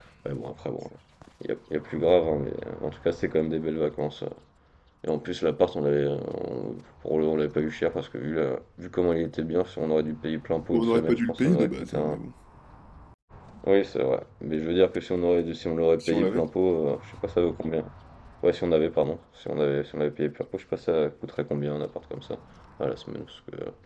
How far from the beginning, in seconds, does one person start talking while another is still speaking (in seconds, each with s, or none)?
10.7 s